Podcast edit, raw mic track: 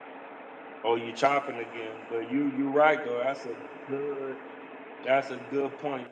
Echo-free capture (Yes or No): Yes